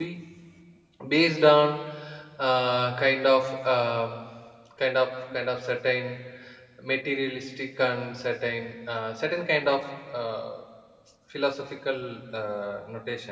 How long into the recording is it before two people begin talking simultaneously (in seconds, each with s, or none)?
none